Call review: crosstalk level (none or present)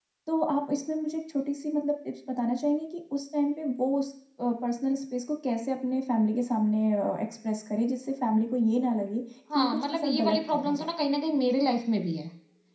present